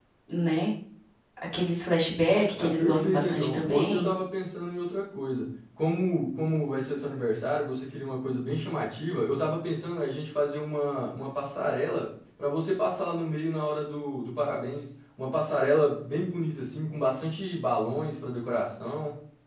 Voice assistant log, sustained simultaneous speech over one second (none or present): present